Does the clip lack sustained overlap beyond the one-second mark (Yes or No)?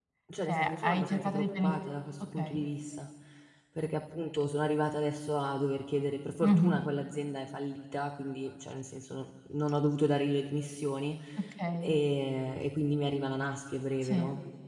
No